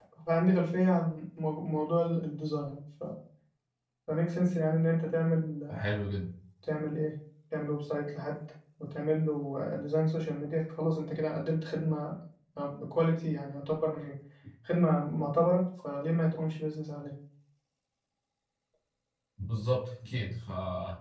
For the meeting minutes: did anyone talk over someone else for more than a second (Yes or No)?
No